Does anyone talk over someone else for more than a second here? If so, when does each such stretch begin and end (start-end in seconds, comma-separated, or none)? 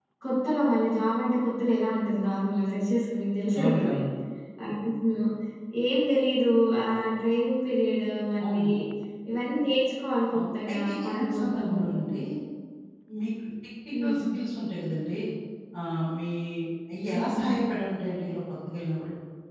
10.3-11.9